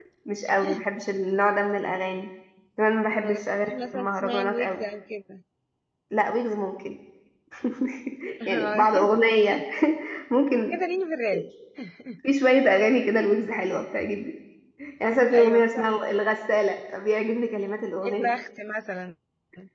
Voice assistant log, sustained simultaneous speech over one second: present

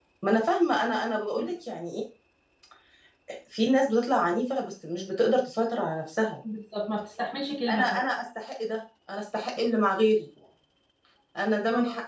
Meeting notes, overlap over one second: none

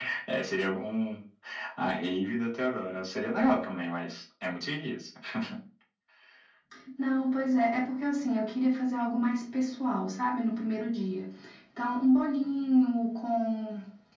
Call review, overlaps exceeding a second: none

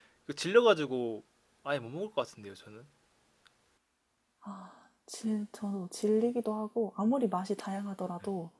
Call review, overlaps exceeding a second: none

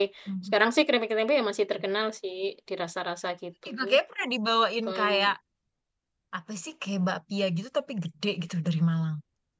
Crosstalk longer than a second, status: none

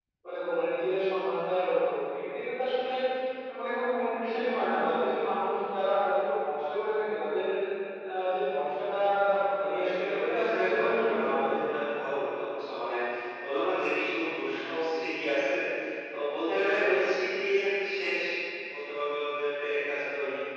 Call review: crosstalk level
present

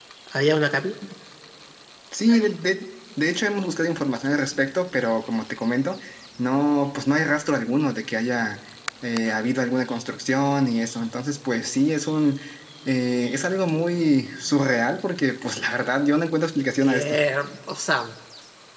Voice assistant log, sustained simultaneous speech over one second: none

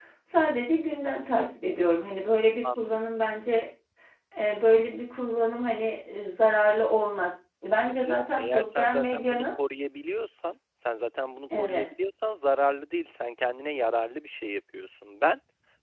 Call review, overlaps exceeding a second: present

